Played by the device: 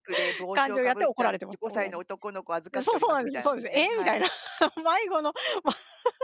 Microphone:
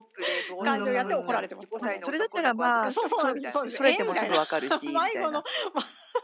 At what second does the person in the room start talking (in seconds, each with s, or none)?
0.6 s